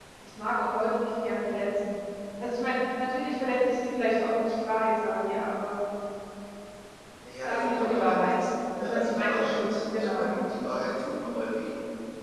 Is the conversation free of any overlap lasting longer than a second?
No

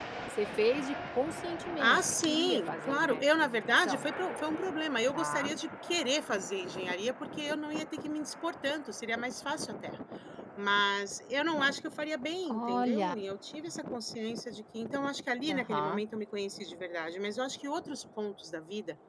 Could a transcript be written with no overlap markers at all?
No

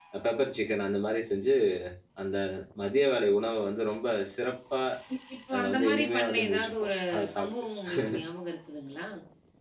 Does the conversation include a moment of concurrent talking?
Yes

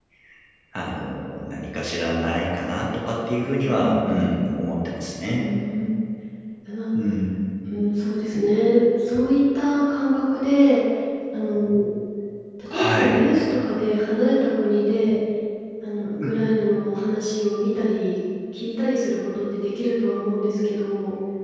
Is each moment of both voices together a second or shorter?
Yes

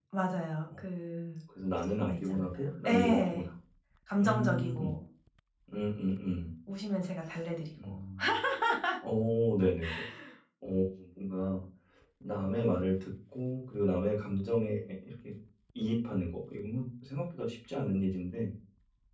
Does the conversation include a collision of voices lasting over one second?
Yes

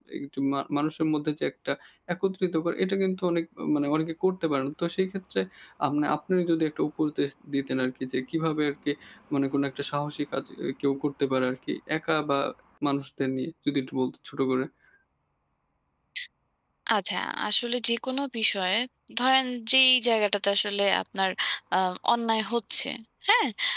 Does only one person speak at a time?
Yes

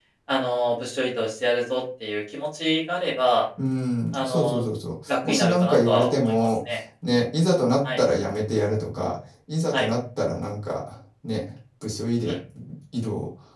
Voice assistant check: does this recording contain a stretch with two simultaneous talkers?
Yes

